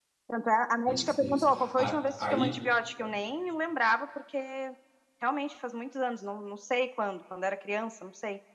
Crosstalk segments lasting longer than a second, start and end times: 0.9-2.6

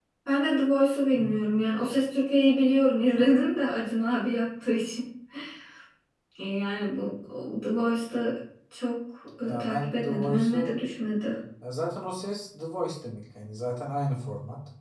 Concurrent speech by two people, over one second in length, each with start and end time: 9.4-10.7

